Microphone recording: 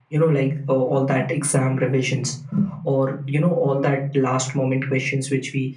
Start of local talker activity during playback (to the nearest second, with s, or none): none